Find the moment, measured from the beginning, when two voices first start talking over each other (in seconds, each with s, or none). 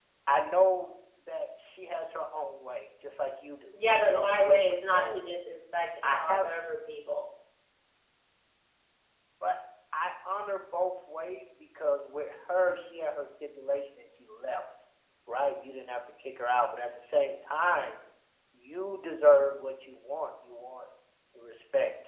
3.7 s